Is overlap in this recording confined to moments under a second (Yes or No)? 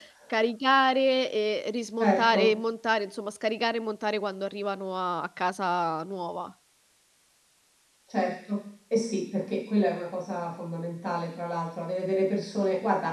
Yes